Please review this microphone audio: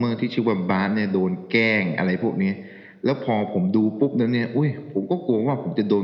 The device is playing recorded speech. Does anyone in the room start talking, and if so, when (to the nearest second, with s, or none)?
none